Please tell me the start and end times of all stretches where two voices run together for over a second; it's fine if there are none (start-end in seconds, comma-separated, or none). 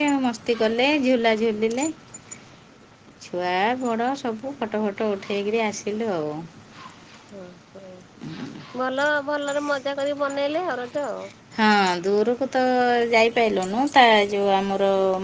none